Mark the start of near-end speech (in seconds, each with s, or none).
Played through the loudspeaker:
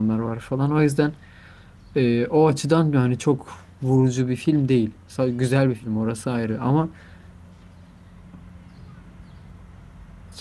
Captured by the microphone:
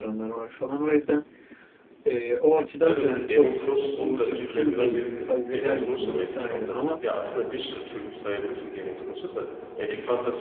2.8 s